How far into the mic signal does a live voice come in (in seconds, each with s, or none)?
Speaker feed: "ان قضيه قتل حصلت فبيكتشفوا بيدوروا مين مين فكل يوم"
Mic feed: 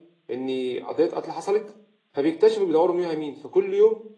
none